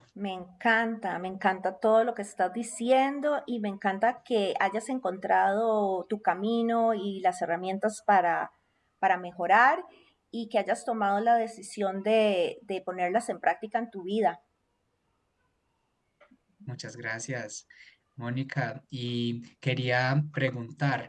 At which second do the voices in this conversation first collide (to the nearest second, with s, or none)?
none